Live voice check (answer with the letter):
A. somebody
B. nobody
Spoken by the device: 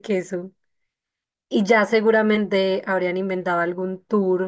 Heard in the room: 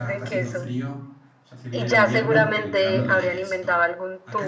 A